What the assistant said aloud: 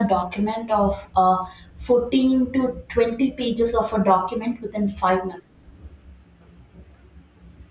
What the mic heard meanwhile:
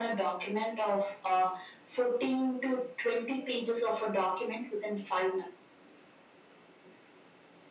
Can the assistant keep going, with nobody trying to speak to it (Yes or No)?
Yes